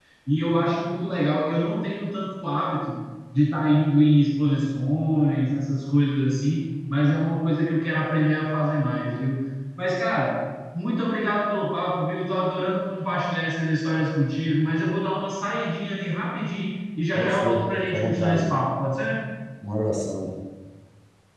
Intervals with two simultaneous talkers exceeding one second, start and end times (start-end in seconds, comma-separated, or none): 17.1-18.5